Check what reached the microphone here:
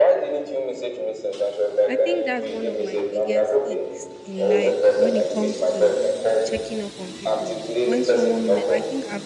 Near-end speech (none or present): present